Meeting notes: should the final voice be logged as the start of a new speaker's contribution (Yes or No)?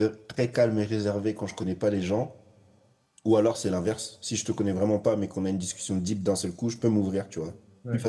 No